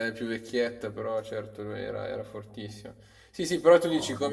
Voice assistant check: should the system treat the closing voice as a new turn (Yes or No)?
No